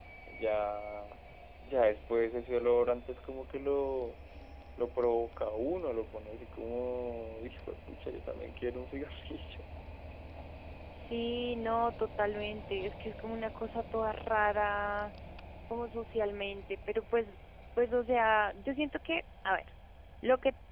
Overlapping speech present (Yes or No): No